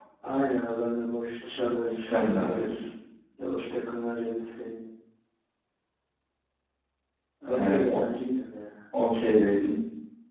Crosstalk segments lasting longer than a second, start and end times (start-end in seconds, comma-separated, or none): 1.5-2.7